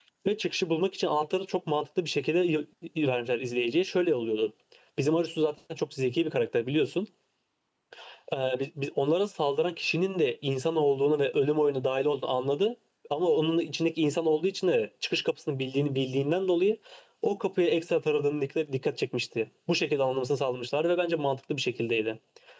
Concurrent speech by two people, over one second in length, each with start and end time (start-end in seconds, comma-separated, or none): none